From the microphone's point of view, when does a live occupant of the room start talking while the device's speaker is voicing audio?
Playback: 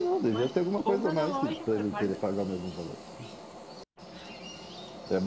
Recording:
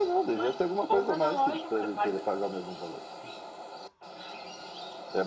none

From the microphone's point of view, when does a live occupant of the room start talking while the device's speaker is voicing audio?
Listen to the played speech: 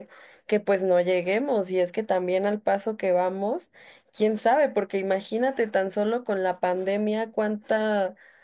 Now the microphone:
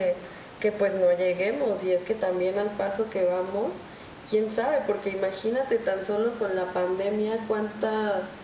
none

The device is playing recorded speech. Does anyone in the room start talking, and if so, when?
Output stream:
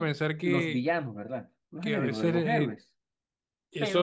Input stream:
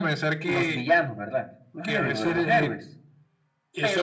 none

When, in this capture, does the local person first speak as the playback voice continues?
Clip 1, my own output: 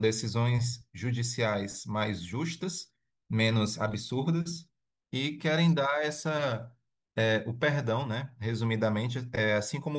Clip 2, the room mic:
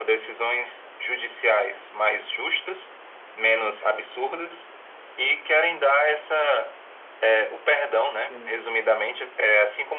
8 s

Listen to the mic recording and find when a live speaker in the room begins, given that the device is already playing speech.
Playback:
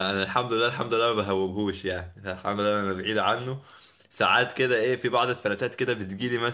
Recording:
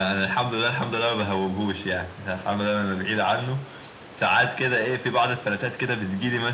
none

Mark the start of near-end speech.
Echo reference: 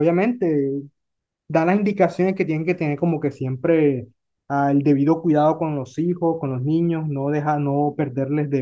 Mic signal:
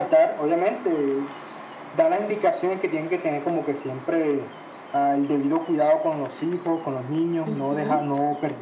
7 s

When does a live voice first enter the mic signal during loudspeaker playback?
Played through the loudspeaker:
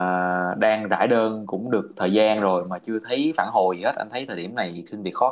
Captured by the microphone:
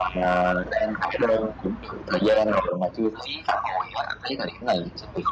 none

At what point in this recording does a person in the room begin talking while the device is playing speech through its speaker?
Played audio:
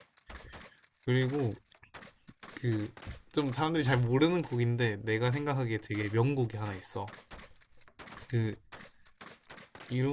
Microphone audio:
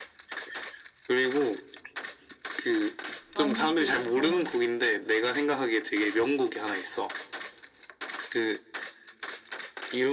3 s

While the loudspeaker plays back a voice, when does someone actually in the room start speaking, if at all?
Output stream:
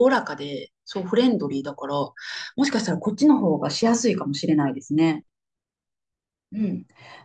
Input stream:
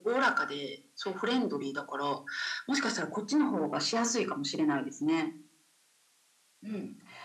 none

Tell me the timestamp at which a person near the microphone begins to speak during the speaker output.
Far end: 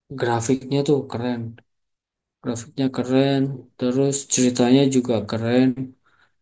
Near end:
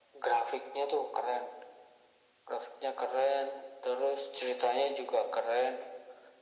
none

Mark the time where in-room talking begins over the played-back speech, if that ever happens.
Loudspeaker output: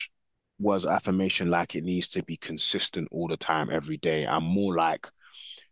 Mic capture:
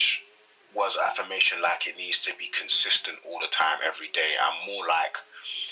none

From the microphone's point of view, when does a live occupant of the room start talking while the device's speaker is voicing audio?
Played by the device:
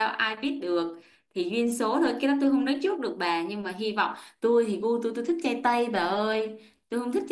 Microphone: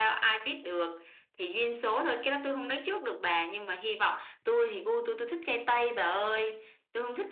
none

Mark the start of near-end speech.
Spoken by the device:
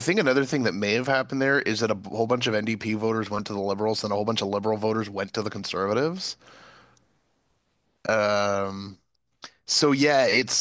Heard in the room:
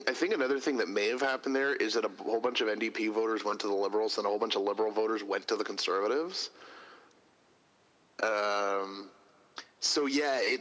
none

